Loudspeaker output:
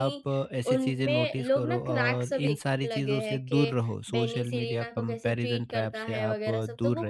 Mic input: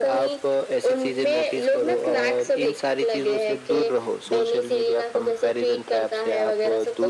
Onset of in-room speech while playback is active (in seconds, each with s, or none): none